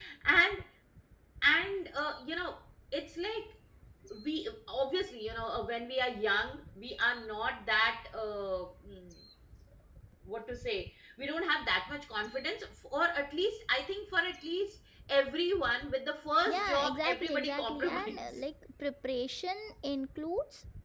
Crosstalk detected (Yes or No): Yes